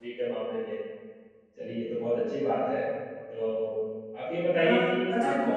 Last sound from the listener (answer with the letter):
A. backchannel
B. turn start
B